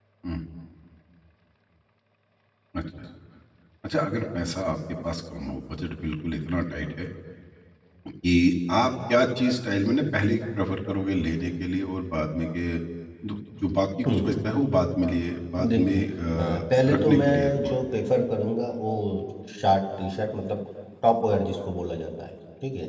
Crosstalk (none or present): present